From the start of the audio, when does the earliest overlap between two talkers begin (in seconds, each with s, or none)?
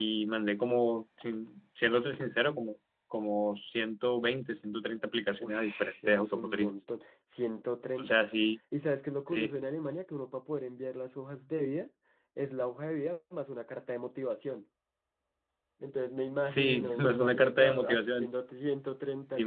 5.4 s